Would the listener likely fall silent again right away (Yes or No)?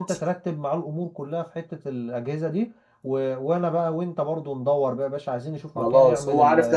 No